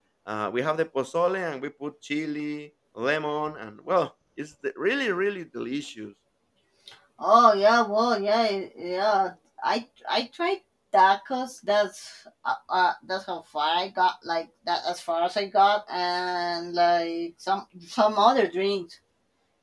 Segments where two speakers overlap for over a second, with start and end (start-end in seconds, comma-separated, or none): none